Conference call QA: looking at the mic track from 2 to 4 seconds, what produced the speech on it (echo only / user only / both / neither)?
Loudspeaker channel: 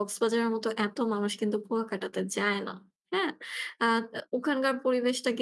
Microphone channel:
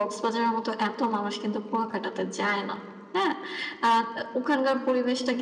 echo only